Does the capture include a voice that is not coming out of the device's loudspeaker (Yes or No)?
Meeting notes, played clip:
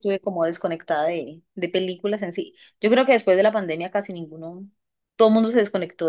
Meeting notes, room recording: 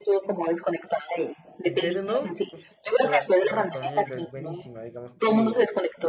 Yes